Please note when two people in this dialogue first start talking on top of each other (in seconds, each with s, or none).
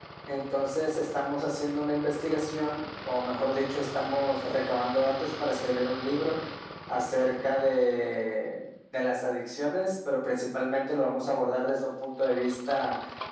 none